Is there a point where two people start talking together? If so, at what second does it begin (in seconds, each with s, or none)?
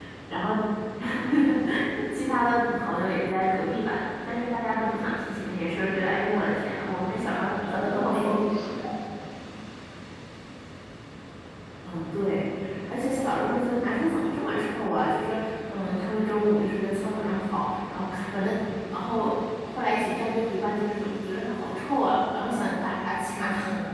7.4 s